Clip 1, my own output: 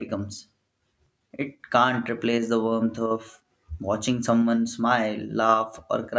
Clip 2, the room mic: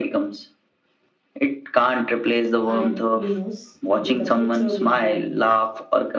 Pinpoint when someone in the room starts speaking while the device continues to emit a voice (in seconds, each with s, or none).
2.6 s